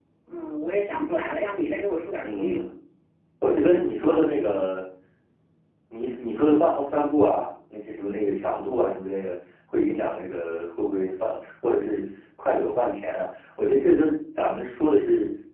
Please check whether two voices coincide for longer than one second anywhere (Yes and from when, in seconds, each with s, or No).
No